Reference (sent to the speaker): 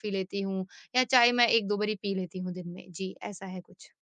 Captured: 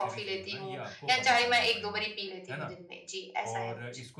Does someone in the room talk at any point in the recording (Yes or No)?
Yes